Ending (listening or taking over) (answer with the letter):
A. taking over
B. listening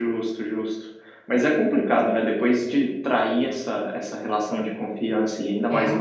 B